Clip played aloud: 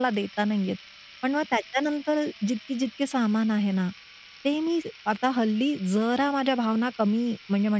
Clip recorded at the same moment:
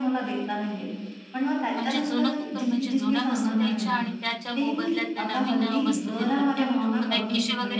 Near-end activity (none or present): present